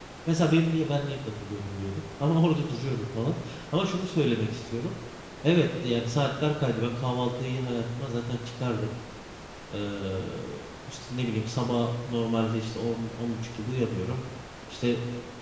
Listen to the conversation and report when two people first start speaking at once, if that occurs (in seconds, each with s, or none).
none